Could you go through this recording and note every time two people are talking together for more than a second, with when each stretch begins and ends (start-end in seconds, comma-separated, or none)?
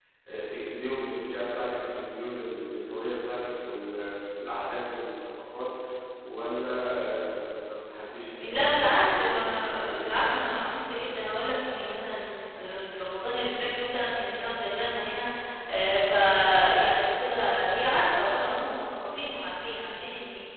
8.4-10.5